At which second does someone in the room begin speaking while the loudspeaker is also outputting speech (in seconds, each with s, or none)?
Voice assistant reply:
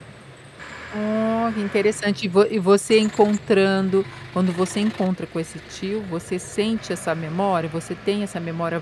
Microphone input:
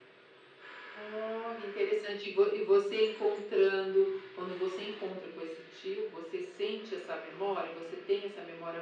none